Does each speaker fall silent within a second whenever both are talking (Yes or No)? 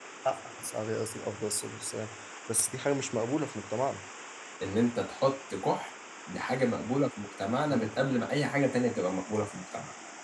Yes